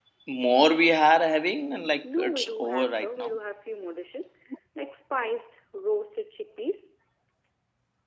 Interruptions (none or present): present